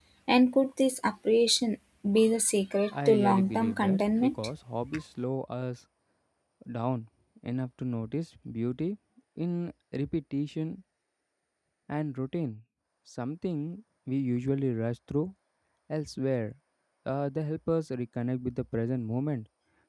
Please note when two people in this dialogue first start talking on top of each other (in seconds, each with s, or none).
2.9 s